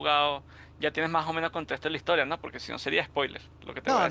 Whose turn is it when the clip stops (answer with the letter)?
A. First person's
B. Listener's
B